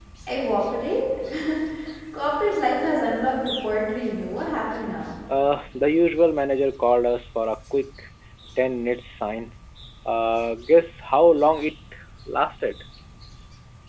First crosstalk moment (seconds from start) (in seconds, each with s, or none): none